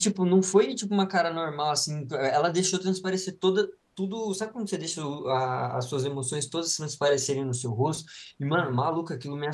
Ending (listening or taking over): listening